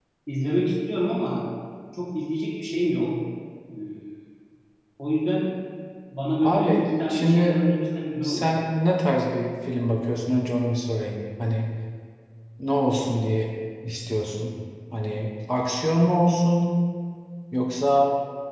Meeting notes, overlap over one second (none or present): present